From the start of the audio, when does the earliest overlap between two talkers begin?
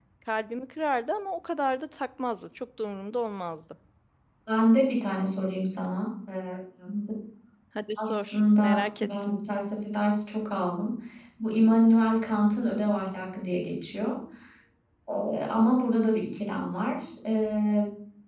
8.0 s

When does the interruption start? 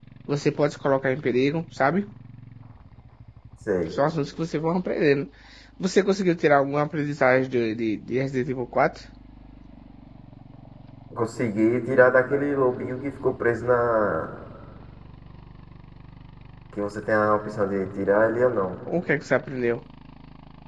none

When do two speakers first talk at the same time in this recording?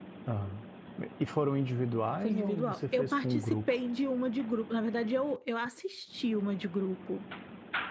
2.2 s

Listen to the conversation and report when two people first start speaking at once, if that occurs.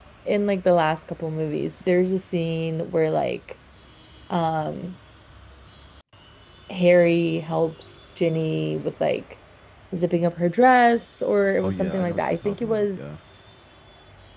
11.6 s

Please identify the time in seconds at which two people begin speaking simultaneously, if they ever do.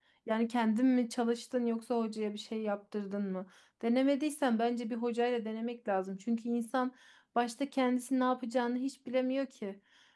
none

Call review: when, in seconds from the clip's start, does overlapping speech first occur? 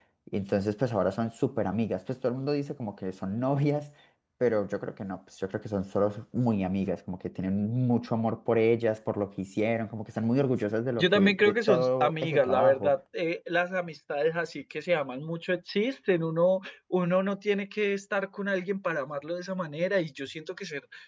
11.0 s

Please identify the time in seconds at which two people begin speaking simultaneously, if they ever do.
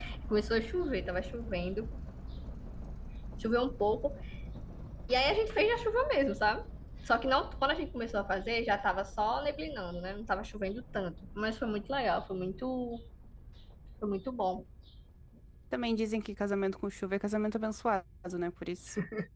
none

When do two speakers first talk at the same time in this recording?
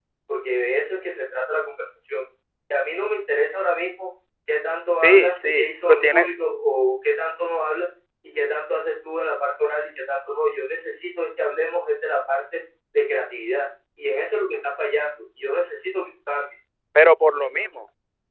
5.0 s

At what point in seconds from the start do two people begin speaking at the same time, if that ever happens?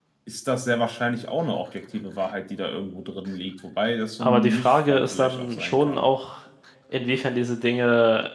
4.2 s

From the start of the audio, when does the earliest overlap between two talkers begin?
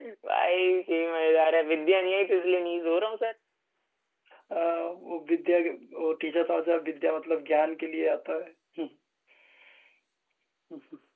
none

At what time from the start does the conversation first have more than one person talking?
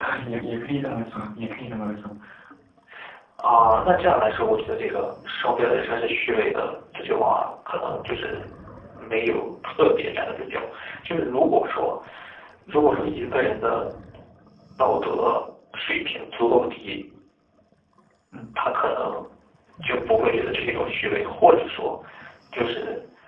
none

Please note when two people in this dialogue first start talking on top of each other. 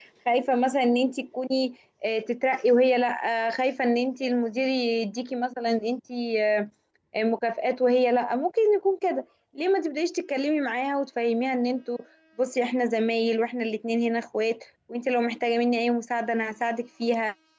none

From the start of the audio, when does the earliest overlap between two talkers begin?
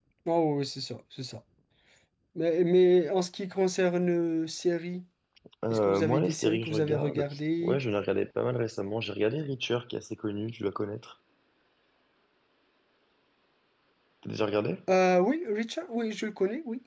5.7 s

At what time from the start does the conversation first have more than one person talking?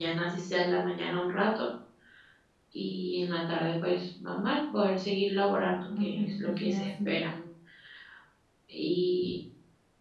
5.6 s

